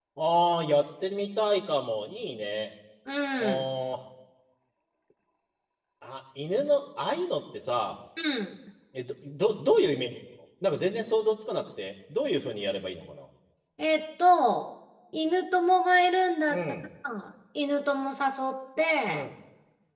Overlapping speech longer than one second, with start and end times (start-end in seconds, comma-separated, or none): none